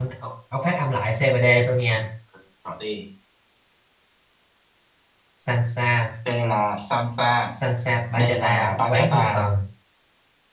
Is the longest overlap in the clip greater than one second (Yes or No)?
Yes